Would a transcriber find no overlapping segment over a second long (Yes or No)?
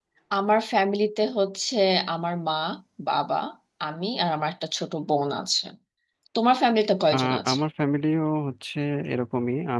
Yes